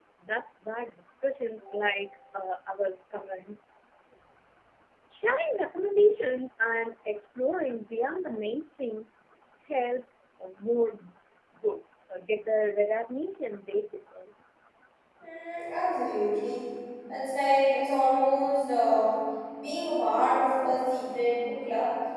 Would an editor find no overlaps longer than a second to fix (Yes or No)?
Yes